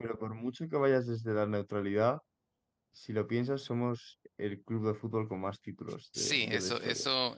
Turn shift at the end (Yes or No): Yes